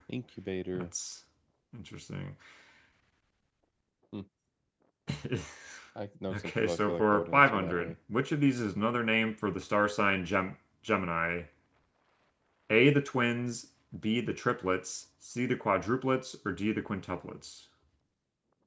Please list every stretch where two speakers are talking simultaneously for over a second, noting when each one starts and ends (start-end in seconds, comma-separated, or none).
6.3-7.9